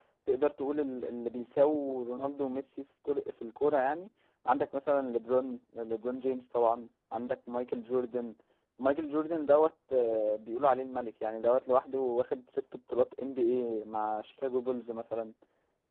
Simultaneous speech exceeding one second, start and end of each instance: none

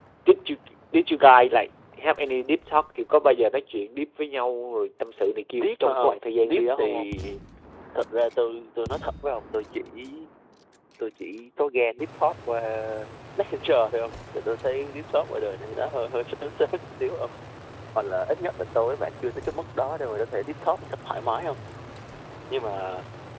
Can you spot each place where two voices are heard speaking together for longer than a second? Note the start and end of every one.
5.5-7.1

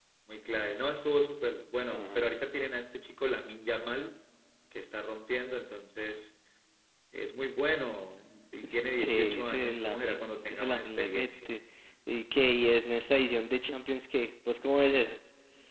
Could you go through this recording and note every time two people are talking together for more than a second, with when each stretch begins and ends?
8.9-11.5

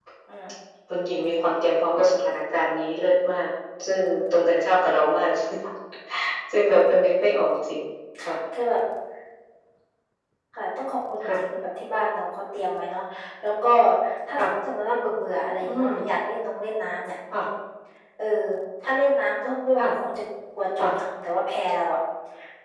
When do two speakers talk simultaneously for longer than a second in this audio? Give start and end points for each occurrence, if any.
none

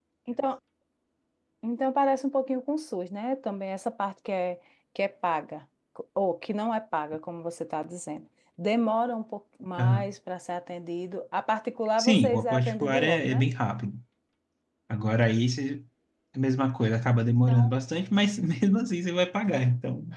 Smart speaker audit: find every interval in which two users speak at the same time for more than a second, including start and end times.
12.0-13.5

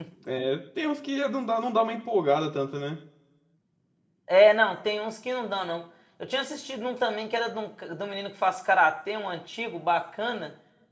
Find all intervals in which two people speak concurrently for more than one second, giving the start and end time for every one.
none

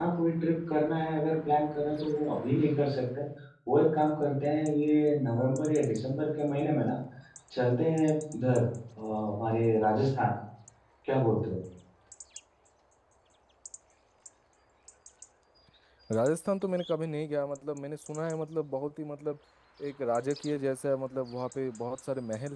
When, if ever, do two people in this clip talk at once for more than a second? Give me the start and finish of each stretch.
none

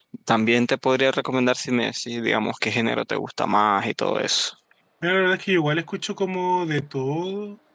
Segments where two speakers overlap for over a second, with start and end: none

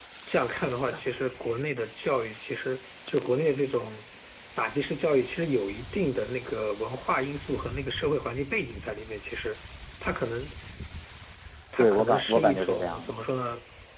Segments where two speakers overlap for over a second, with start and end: 11.8-13.2

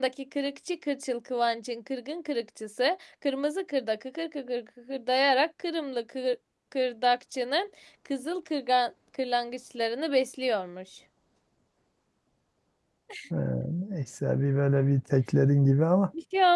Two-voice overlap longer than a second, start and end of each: none

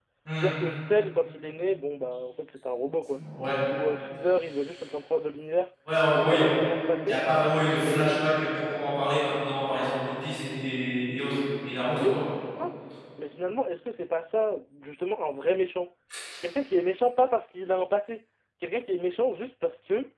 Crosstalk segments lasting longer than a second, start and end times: none

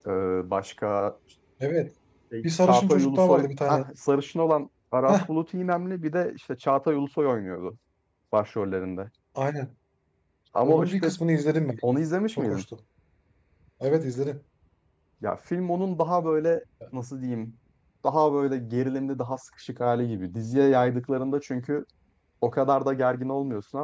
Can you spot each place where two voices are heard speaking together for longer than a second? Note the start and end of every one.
2.4-3.8

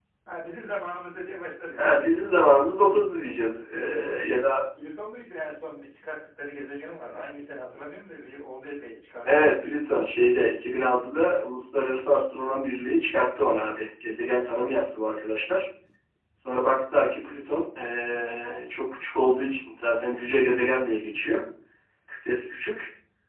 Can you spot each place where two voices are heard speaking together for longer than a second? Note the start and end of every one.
none

